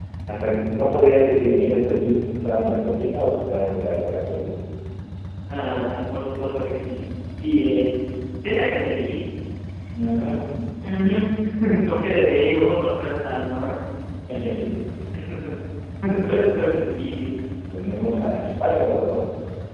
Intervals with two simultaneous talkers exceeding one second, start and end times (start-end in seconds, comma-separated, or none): none